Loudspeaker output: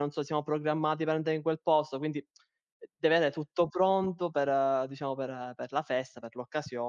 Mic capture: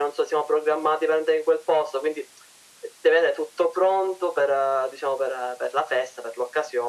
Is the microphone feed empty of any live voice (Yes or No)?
Yes